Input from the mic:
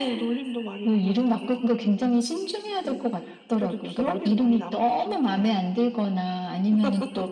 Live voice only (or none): none